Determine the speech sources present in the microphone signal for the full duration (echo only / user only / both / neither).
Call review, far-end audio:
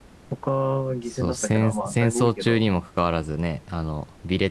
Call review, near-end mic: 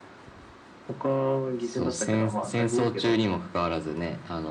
echo only